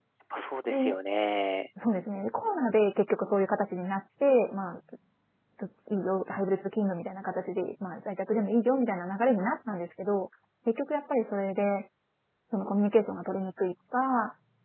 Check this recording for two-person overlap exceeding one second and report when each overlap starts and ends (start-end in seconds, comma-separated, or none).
none